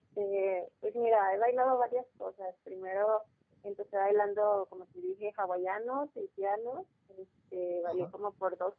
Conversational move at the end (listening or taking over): listening